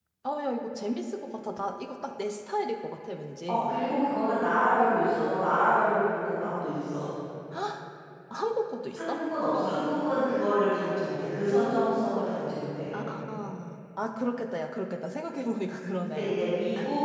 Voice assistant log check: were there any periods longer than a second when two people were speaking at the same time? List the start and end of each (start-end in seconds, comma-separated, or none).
none